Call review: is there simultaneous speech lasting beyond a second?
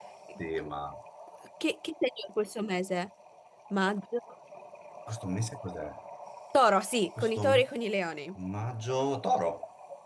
No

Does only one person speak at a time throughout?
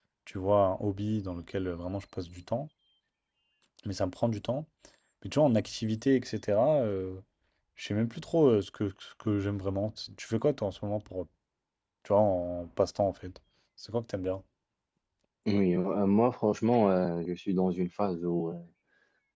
Yes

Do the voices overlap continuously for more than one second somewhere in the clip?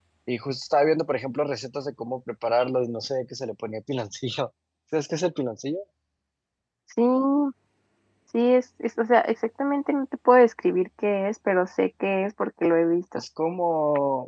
No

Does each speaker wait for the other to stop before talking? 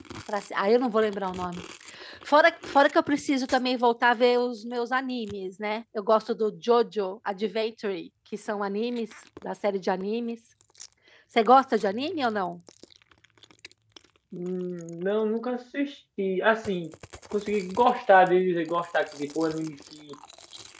Yes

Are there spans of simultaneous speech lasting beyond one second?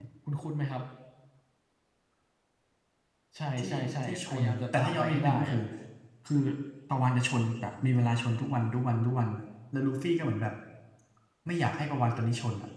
Yes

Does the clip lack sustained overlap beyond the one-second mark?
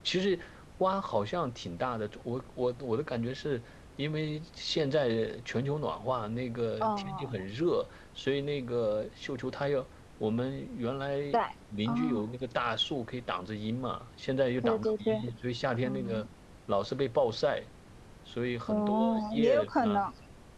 No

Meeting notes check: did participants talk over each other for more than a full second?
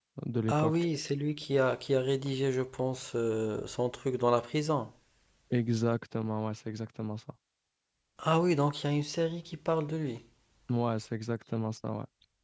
No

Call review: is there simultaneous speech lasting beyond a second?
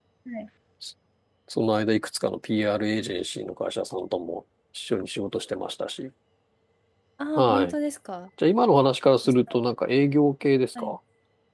No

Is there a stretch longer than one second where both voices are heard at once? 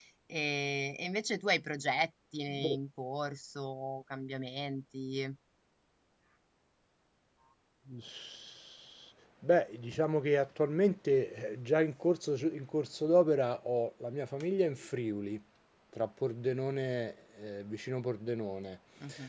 No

